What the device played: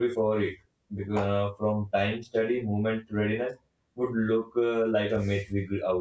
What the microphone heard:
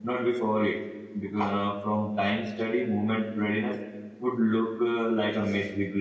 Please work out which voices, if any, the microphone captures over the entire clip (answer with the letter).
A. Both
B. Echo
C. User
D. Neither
B